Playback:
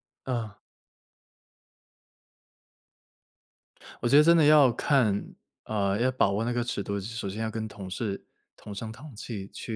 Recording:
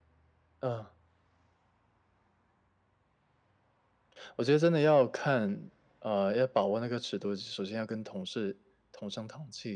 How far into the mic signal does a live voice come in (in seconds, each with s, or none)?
none